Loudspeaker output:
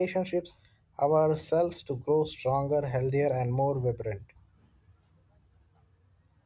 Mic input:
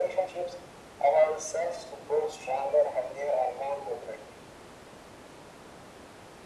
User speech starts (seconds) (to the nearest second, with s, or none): none